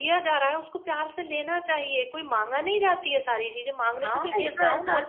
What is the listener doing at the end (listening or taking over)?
taking over